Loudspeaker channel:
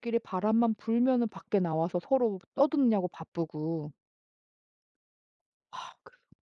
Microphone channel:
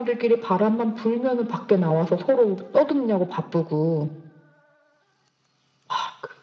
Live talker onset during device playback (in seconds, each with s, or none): none